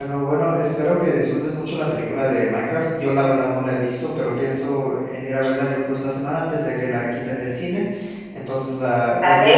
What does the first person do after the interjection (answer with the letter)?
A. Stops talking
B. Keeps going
B